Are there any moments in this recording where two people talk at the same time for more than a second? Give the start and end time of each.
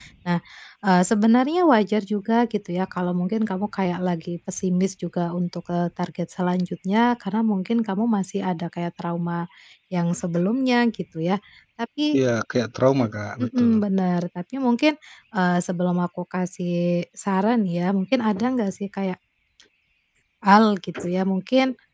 none

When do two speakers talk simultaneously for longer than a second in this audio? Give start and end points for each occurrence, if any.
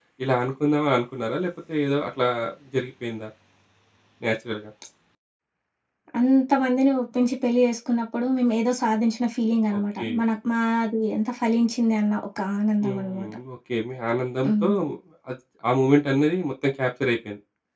none

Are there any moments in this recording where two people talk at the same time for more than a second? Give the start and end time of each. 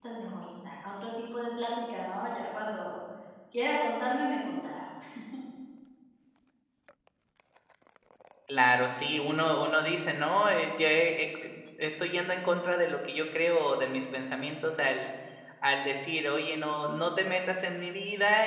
none

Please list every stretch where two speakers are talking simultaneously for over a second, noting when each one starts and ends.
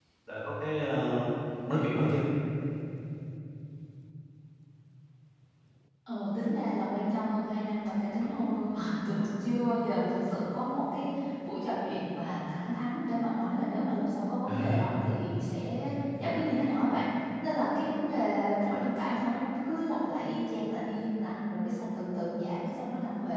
none

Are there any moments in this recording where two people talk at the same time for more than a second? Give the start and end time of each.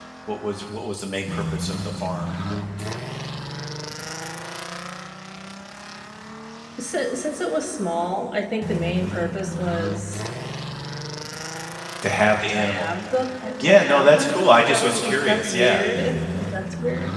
13.6-15.9

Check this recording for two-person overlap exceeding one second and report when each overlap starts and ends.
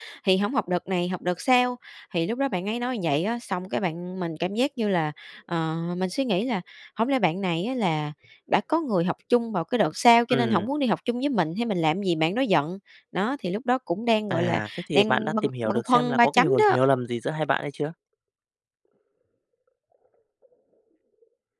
14.3-16.8

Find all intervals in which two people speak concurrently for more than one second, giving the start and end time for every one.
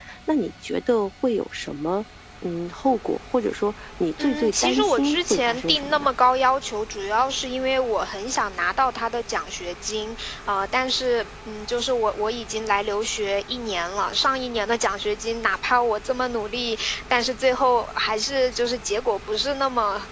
4.2-6.1

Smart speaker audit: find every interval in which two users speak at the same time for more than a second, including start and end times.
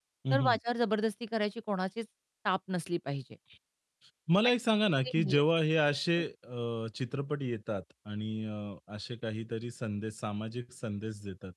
none

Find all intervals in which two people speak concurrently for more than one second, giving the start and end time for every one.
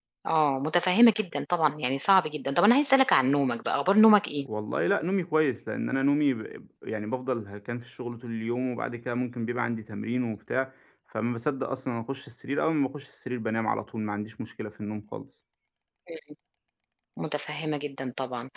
none

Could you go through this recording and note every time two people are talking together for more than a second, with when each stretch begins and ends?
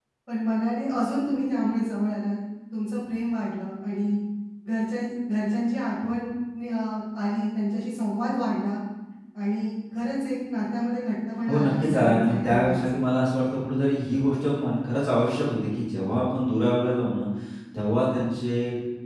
11.5-12.8

